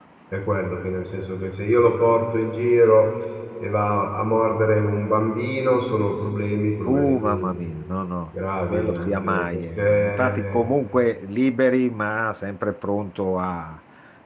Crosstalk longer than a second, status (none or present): present